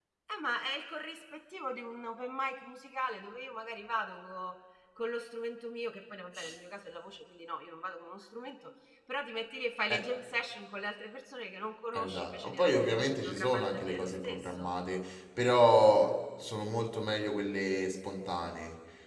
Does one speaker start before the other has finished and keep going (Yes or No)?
Yes